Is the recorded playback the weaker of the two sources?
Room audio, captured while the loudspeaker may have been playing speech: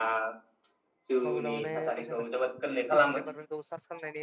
No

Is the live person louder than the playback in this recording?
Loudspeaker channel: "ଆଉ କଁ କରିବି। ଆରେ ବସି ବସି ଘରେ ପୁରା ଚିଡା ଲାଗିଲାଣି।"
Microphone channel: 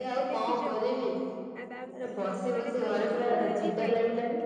No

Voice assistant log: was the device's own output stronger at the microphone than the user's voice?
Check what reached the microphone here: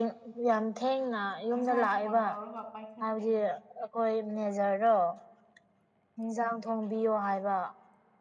Yes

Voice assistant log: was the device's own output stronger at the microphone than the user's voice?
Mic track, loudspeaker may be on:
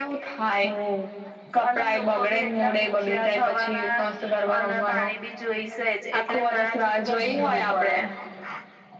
Yes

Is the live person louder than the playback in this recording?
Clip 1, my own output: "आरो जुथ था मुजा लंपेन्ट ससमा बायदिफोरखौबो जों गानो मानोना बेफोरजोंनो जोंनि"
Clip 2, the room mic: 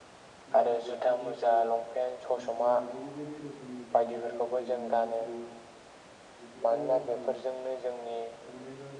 No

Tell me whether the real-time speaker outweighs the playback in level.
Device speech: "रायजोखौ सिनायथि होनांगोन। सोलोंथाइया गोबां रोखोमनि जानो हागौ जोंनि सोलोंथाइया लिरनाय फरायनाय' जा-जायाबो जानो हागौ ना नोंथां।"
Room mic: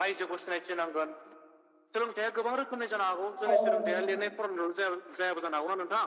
Yes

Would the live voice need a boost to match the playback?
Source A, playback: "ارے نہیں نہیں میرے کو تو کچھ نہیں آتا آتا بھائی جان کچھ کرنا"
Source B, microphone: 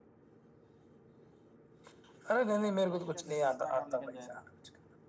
Yes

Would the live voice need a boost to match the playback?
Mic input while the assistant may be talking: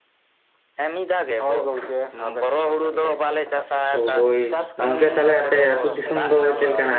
No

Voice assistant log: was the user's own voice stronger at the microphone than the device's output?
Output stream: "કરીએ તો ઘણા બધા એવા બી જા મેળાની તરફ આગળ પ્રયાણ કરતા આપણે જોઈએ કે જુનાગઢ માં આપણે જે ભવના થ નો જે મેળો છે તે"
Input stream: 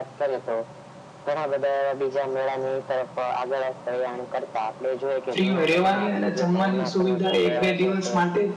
Yes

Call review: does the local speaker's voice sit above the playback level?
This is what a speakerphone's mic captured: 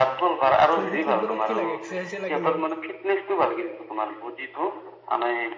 No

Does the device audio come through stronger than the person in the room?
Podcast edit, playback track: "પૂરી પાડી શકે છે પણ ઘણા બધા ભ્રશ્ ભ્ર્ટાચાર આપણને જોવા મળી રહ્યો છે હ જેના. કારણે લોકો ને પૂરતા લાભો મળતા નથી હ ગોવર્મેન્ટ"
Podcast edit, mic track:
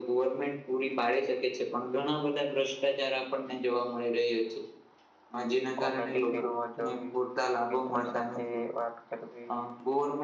Yes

